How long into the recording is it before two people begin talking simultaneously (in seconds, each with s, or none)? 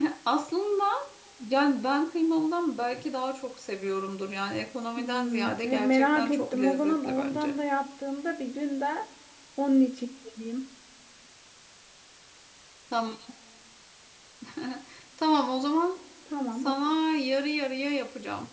5.0 s